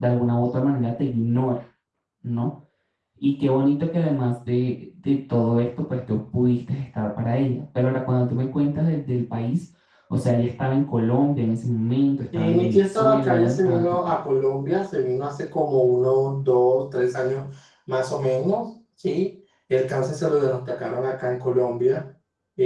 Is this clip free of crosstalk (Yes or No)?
No